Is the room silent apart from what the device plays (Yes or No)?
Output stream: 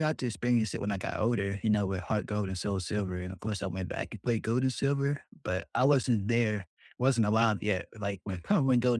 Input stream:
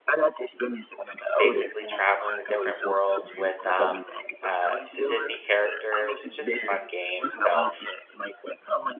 No